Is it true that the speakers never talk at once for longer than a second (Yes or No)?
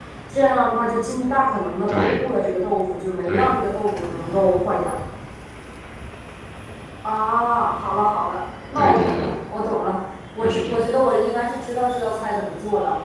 Yes